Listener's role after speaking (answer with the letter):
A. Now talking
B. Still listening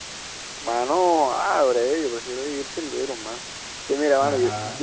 B